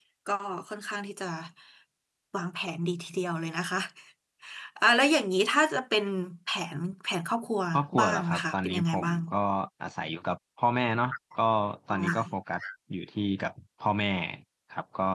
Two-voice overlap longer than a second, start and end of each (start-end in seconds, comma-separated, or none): 8.0-9.2